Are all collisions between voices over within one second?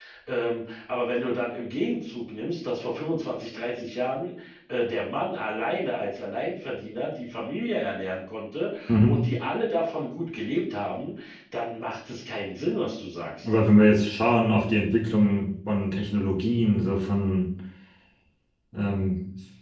Yes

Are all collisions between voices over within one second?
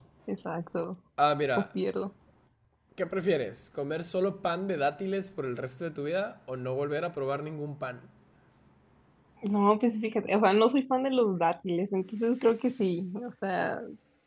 Yes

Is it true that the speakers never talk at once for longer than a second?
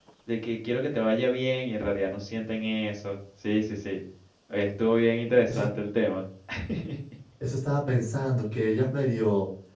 Yes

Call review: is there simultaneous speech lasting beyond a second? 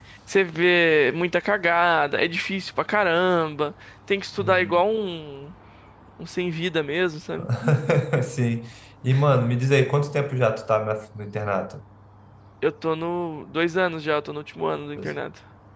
No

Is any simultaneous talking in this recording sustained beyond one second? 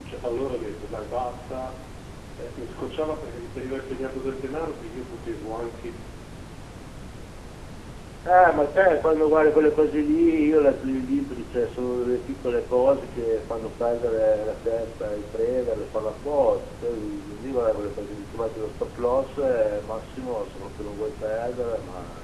No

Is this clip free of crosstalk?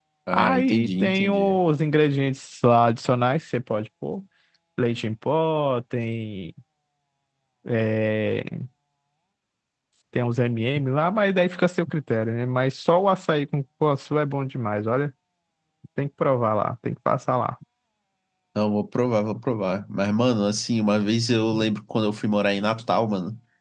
No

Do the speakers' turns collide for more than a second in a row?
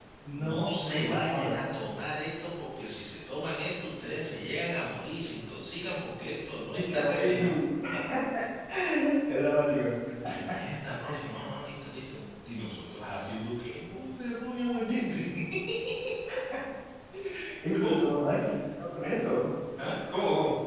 Yes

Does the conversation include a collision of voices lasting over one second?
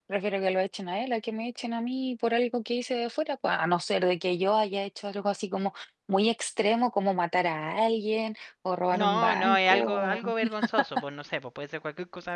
Yes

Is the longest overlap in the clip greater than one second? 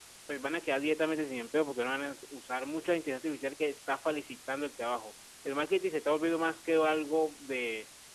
No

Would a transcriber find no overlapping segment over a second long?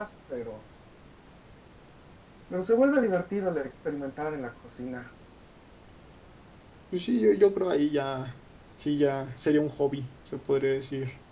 Yes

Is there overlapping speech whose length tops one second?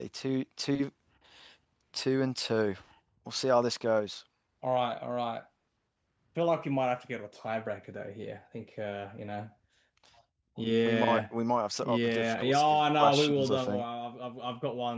Yes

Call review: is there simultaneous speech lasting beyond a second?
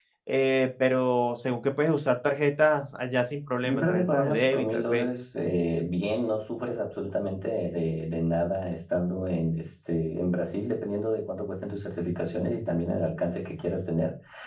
Yes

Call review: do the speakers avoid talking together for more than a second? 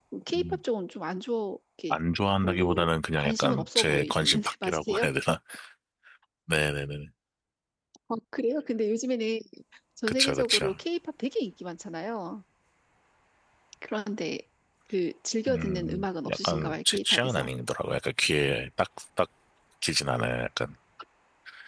No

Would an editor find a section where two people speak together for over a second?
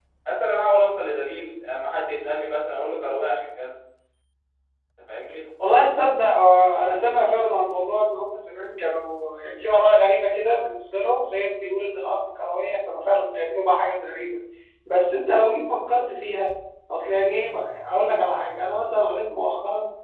No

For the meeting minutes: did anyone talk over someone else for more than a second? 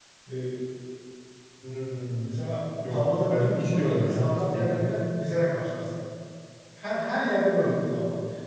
Yes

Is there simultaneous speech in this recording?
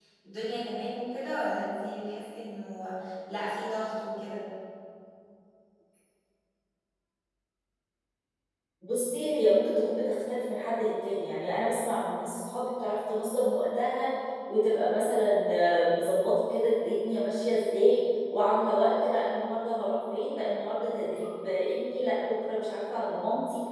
No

